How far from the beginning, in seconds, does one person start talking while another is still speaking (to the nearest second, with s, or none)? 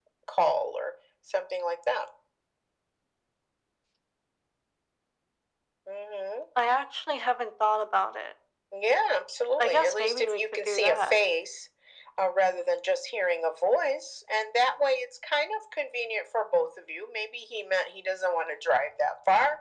10 s